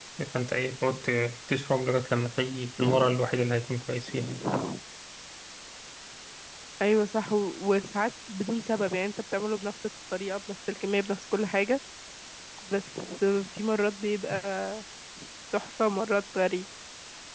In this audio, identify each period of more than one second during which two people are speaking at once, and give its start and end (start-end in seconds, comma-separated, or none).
none